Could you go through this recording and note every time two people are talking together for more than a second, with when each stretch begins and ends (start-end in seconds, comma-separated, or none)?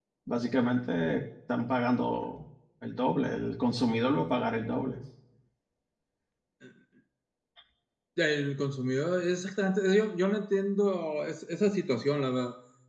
none